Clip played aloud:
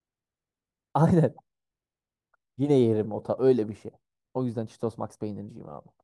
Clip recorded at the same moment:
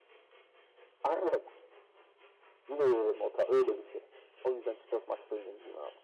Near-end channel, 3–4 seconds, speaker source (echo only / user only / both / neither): echo only